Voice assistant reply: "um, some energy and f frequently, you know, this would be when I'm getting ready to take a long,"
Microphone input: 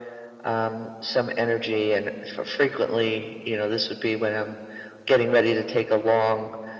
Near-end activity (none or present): none